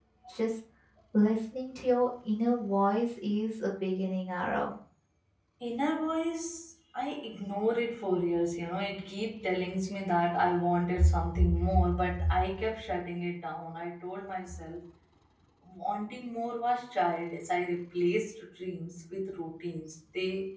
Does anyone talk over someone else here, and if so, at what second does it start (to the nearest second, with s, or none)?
none